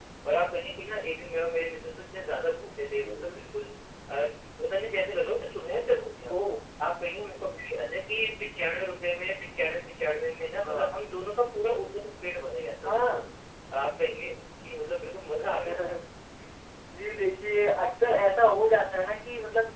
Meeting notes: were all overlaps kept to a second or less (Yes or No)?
Yes